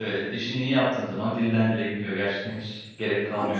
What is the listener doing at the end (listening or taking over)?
taking over